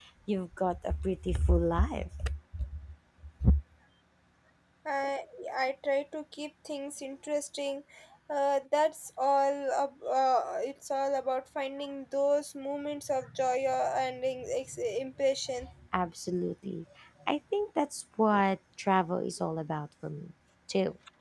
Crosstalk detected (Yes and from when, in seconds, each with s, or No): No